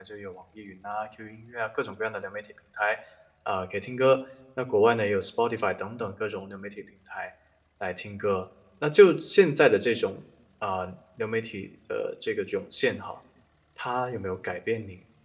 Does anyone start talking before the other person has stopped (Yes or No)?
No